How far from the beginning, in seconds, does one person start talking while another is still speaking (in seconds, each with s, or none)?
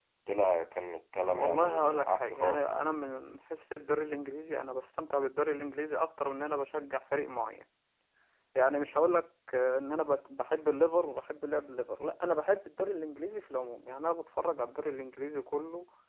1.3 s